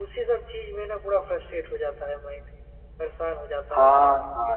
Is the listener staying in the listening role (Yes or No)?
No